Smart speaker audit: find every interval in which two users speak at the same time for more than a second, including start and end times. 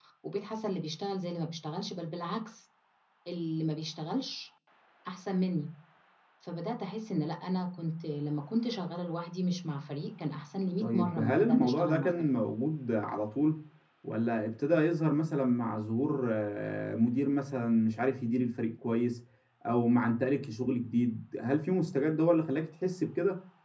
10.8-12.3

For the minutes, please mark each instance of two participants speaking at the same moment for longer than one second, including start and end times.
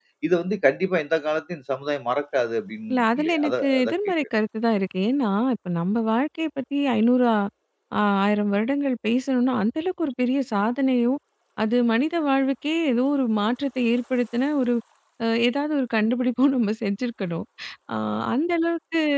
2.9-4.1

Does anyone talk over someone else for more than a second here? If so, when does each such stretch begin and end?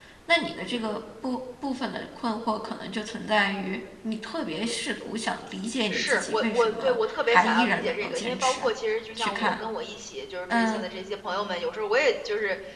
5.9-8.7

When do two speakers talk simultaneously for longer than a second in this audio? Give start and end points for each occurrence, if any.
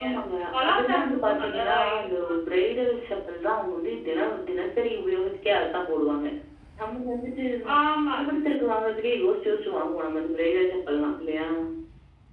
0.6-2.3

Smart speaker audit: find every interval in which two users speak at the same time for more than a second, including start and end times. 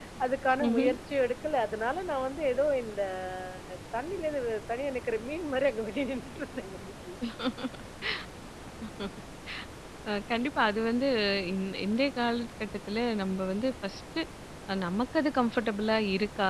none

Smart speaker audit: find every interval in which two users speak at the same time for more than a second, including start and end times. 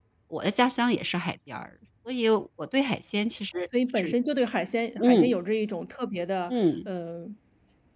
none

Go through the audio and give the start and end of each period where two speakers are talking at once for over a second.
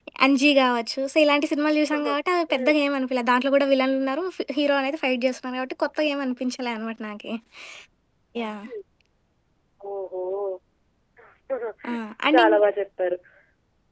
none

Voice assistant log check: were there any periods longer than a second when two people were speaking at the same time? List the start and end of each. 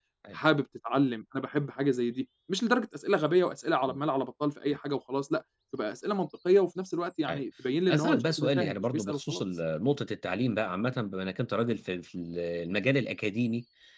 7.9-9.4

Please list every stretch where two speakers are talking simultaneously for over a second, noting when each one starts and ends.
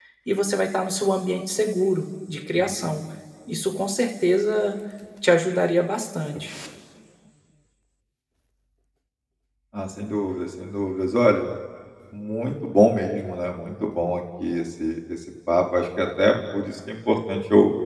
none

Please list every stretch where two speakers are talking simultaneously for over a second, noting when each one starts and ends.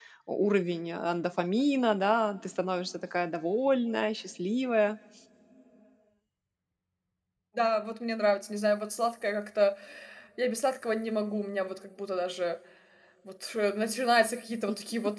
none

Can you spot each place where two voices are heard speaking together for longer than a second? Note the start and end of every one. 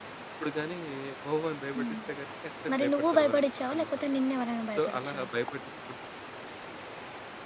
2.7-4.1

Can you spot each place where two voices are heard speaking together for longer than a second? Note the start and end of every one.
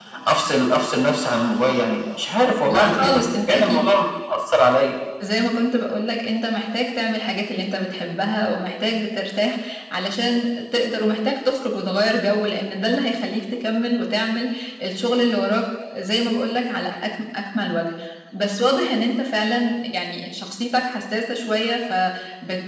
2.7-3.9

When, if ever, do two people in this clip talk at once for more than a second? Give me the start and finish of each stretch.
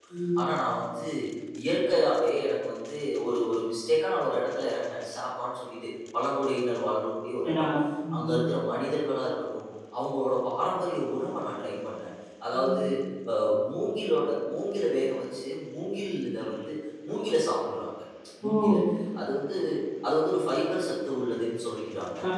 none

